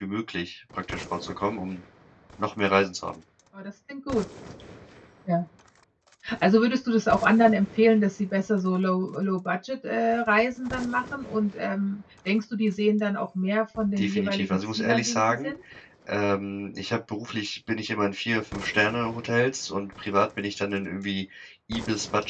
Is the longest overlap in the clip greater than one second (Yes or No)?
Yes